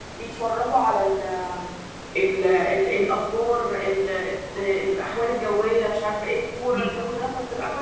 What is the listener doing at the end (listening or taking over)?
listening